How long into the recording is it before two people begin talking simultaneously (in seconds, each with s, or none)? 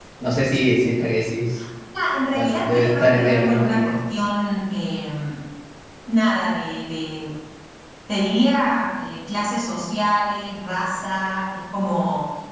2.3 s